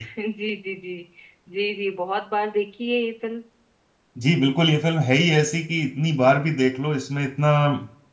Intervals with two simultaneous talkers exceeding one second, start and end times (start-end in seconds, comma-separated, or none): none